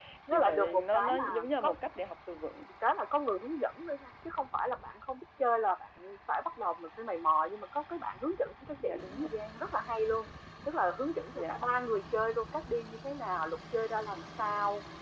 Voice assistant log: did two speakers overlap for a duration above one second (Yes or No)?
Yes